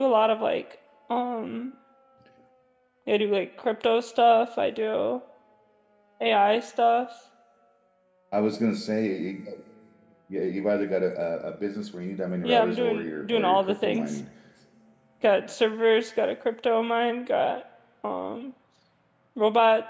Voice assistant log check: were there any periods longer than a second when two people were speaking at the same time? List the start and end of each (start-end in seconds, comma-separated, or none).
12.4-14.2